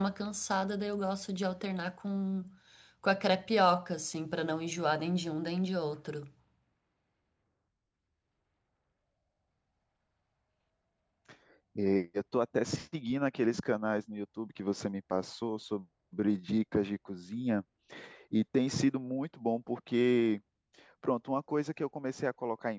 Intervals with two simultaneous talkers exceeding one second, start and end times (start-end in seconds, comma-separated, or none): none